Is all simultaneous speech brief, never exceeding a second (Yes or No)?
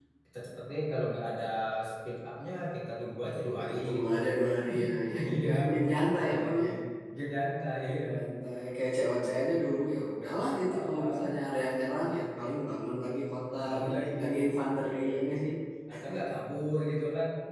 No